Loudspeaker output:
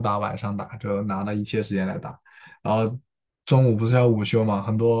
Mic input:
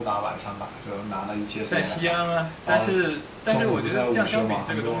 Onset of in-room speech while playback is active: 2 s

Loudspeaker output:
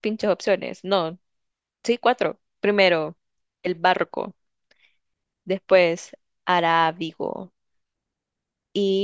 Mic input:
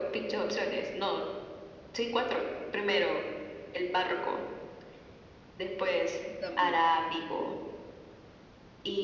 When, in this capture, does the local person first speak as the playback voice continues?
6 s

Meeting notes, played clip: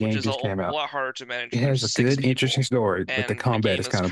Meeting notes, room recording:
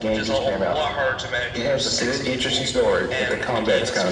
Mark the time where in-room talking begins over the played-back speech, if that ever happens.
none

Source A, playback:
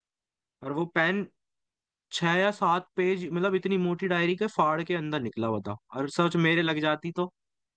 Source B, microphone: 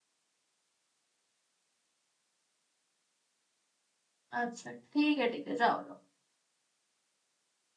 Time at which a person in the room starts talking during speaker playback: 4 s

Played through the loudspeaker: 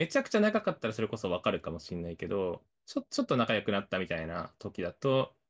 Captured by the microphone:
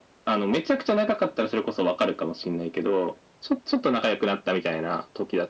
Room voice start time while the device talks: none

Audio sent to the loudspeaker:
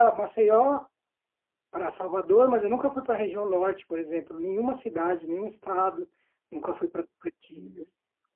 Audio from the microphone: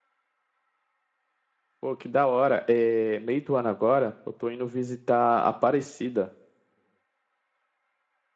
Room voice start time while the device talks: 2 s

